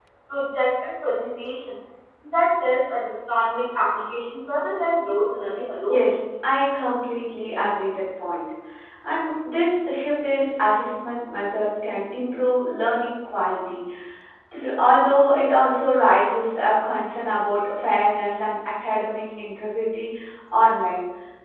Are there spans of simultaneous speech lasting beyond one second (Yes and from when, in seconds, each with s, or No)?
No